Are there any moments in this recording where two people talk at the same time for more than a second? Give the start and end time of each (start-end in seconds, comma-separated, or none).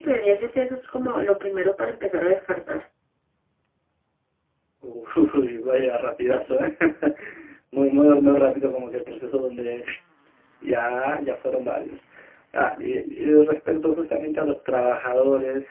none